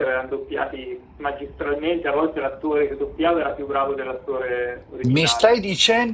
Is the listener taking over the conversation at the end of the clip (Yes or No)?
Yes